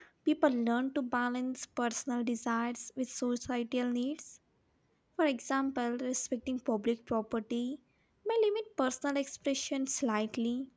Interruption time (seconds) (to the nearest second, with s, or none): none